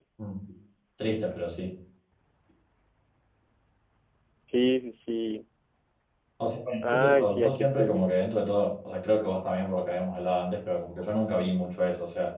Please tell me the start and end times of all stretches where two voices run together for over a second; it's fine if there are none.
6.9-8.1

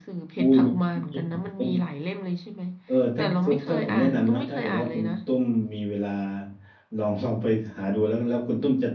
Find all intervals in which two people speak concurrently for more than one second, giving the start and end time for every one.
3.2-5.1

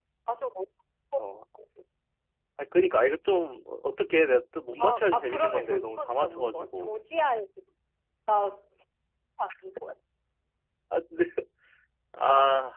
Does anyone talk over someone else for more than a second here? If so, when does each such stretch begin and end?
4.8-6.9

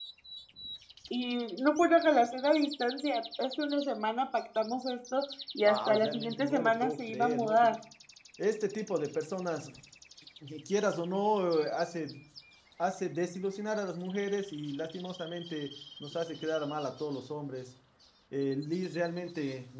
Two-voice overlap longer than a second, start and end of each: 5.6-7.8

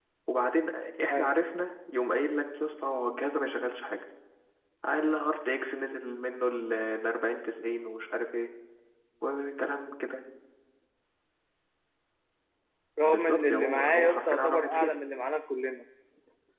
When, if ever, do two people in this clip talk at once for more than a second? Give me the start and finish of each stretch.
13.1-14.9

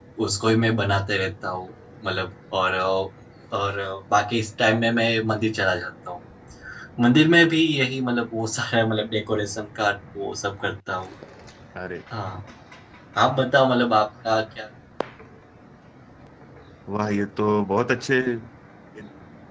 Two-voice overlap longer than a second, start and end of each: none

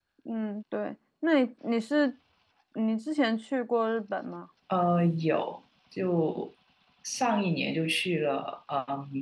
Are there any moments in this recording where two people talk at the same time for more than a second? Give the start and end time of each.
none

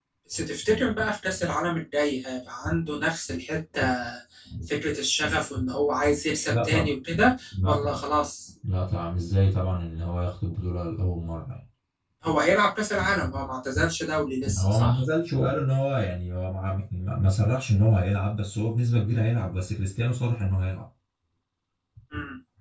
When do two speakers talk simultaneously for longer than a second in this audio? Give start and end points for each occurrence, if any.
none

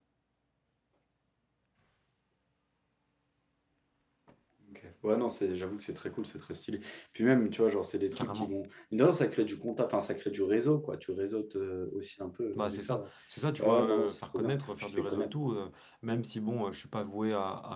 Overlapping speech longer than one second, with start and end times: 13.6-15.3

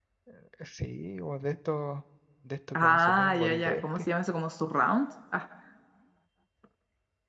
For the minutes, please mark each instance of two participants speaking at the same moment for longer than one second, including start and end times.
2.8-4.1

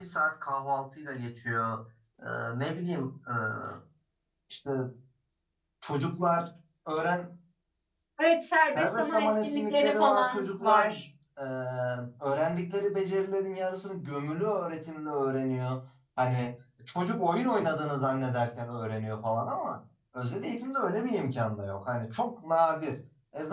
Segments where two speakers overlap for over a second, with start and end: 8.7-10.8

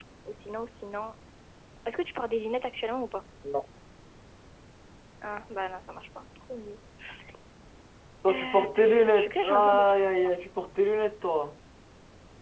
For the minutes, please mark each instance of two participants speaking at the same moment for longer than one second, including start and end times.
8.3-9.9

